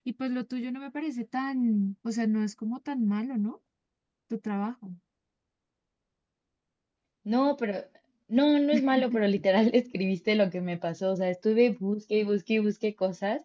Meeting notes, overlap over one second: none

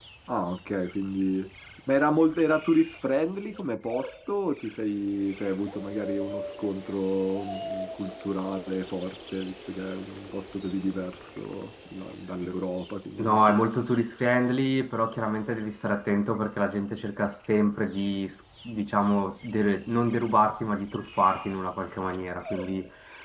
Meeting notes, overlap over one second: none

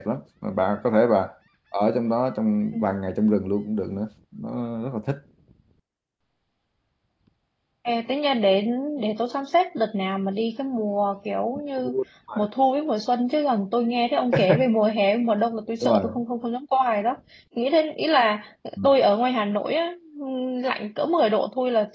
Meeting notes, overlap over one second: none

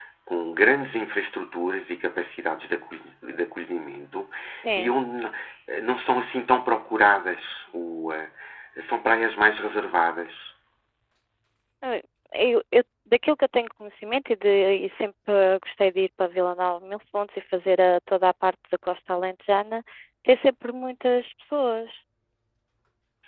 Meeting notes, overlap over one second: none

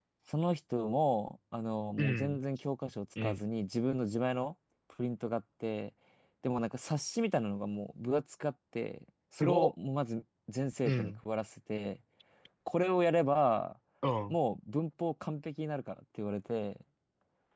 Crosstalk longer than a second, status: none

